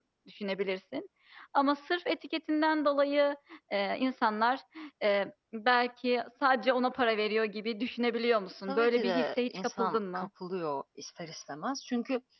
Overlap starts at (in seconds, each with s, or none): 8.7 s